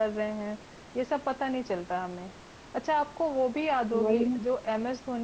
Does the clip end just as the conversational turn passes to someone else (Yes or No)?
No